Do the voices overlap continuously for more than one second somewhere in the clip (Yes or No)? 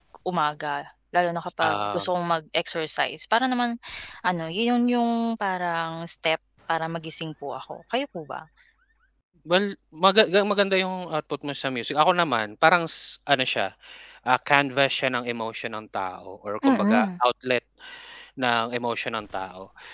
No